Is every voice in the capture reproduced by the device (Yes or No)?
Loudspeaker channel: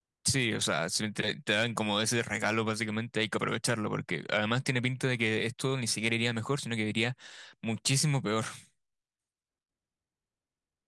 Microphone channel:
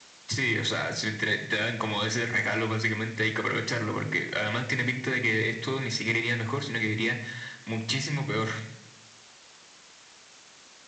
Yes